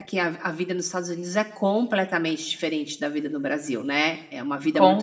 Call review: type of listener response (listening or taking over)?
listening